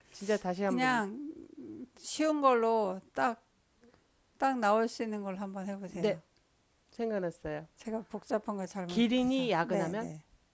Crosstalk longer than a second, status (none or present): present